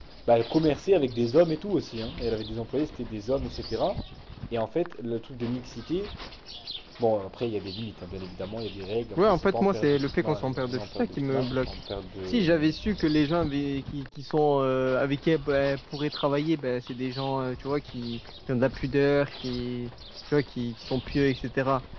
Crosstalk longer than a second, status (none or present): present